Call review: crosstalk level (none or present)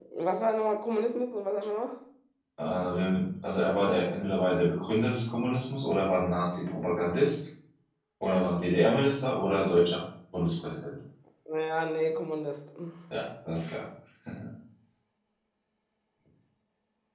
none